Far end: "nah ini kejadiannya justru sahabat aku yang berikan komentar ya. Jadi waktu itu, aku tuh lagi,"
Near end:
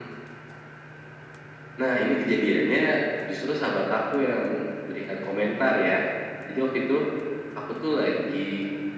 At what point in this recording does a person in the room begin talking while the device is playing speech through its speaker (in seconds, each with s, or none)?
none